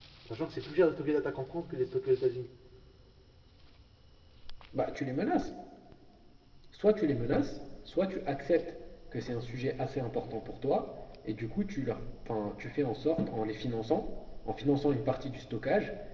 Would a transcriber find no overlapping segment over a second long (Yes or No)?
Yes